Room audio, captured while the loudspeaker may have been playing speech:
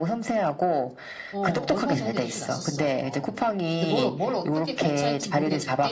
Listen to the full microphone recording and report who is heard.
both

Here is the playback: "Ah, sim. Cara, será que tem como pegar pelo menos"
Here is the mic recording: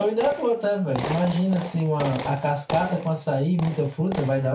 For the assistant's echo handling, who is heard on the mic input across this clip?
user only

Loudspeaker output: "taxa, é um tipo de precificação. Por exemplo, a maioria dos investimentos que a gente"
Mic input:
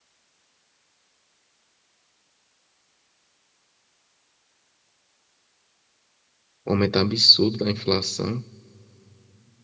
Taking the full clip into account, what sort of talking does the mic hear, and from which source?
user only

